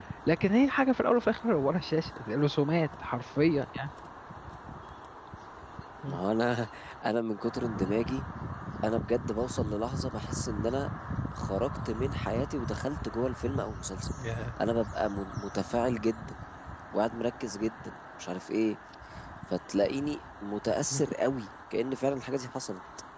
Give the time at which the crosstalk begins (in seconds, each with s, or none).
none